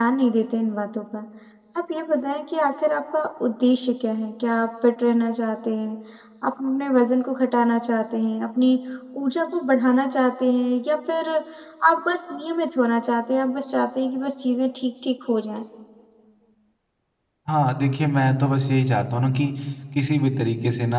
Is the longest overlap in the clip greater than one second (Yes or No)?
No